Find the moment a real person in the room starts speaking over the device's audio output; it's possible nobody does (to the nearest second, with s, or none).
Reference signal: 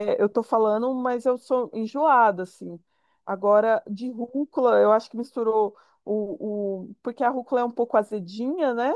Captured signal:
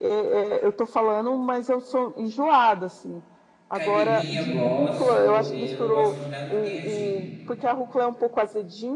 4 s